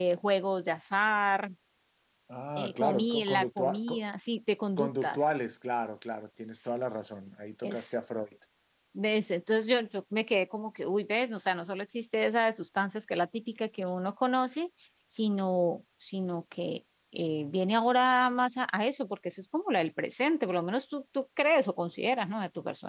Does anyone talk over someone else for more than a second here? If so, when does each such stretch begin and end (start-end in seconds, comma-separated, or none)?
2.6-4.0